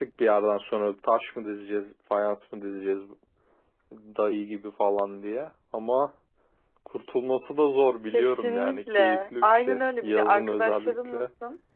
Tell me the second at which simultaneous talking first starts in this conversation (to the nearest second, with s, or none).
8 s